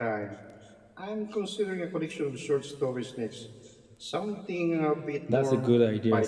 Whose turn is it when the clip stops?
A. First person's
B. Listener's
B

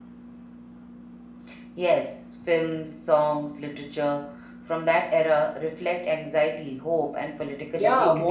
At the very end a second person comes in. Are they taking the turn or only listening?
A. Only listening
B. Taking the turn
B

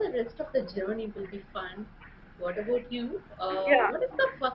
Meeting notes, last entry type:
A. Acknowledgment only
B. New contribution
A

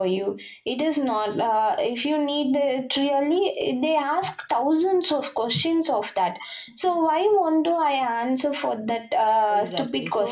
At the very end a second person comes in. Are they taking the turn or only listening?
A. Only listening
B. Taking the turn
B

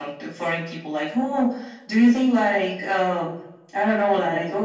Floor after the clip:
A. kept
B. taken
A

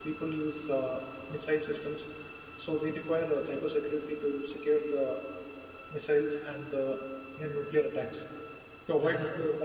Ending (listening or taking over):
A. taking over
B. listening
B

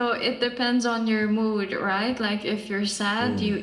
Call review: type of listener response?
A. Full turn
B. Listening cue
B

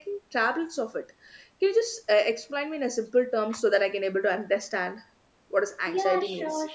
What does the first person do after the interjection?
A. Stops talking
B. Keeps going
A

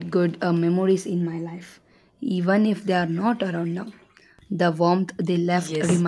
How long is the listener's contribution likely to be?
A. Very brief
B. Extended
B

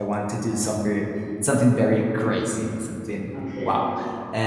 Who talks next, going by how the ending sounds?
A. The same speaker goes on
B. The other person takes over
A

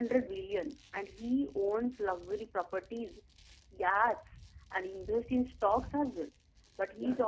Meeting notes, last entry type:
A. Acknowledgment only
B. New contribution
A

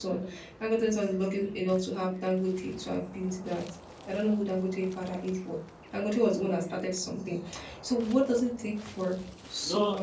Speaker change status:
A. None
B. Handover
B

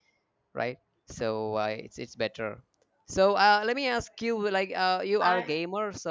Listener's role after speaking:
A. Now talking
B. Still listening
B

